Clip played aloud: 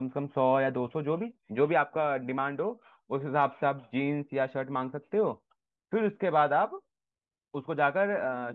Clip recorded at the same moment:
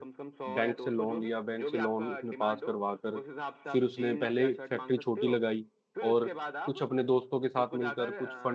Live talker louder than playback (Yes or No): Yes